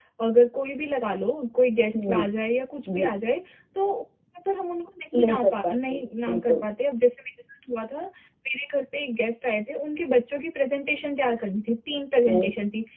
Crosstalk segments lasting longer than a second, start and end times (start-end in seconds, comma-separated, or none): 5.2-6.6